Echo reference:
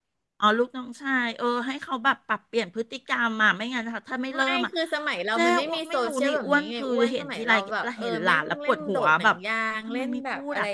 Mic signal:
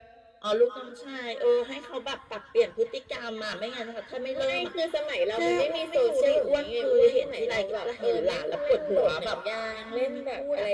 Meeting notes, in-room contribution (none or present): none